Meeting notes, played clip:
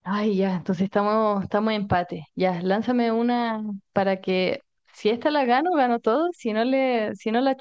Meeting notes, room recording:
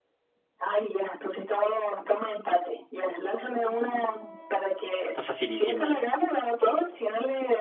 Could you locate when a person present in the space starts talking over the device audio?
5.1 s

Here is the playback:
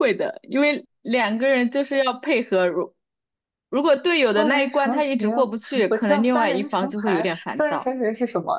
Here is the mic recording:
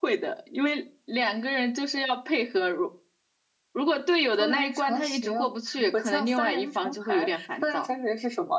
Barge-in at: none

